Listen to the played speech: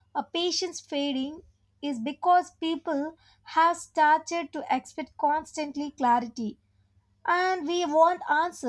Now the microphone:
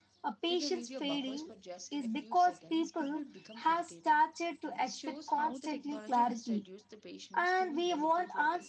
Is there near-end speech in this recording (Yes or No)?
Yes